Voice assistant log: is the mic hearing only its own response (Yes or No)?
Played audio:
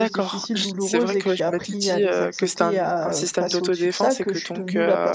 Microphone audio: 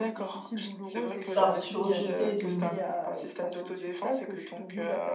No